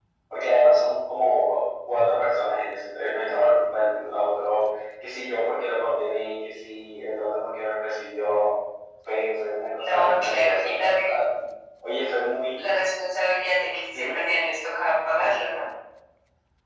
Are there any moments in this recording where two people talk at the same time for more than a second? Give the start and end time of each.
9.8-11.2

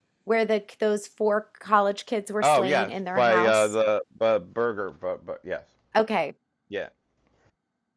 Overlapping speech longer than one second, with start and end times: 2.4-3.7

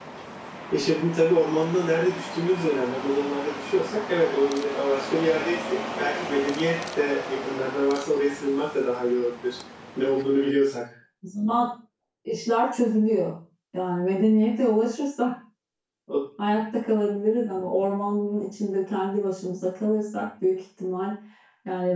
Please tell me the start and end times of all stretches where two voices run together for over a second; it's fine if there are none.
none

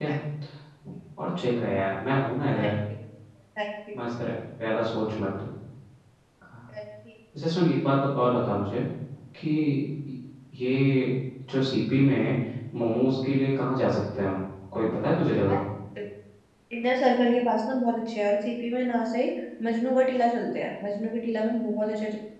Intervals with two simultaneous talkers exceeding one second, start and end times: none

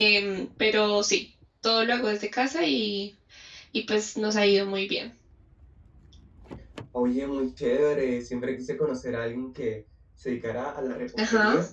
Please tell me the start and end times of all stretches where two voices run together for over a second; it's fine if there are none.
none

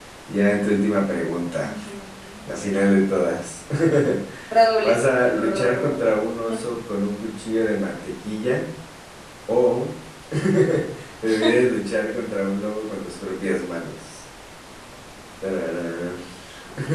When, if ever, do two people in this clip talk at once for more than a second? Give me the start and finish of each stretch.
4.8-6.1

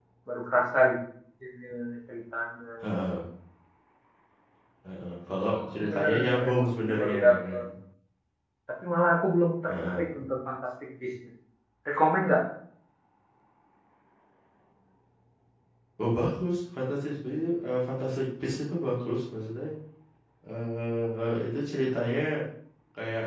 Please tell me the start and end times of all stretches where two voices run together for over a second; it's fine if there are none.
5.4-7.6

